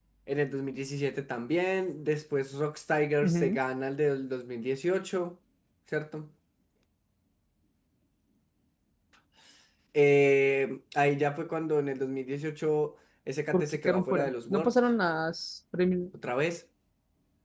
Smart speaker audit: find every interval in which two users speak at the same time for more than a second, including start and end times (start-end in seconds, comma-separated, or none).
13.5-14.7